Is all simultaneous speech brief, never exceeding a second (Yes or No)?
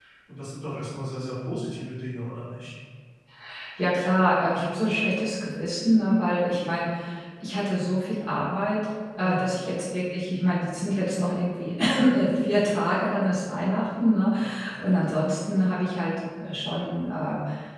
Yes